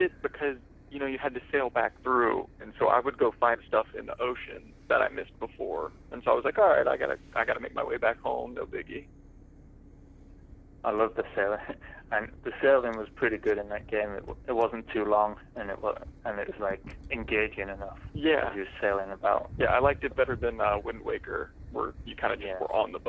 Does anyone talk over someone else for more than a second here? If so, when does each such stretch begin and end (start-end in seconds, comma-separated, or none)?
none